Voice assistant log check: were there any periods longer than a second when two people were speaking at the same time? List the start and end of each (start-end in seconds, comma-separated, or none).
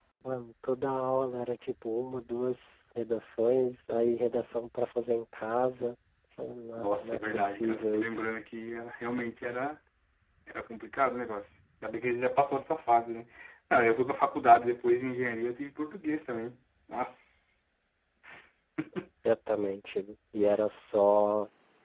6.8-8.3